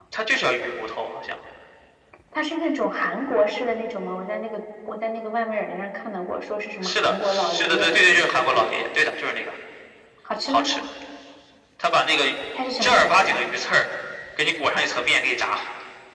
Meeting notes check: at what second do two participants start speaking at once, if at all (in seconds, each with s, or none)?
6.8 s